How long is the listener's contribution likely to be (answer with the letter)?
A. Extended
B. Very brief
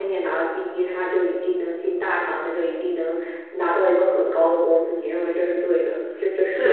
A